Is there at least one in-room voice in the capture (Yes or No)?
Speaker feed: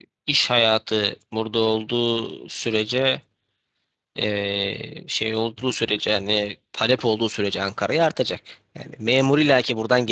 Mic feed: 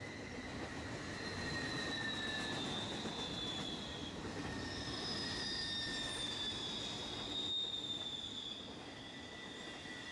No